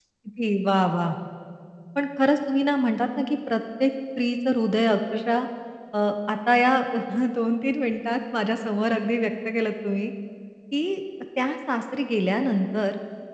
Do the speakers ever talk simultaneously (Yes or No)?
No